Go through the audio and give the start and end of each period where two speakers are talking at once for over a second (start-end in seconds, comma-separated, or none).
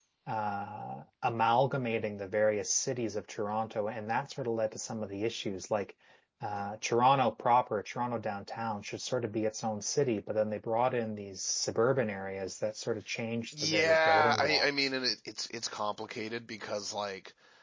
13.6-14.9